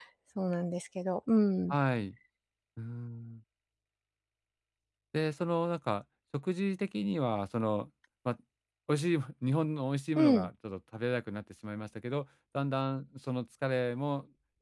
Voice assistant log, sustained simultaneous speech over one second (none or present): none